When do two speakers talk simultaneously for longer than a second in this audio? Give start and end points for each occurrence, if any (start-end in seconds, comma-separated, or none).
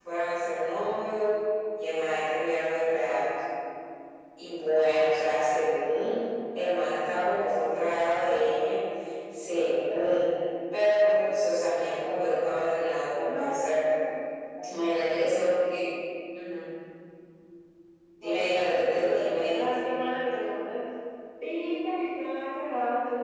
18.2-19.6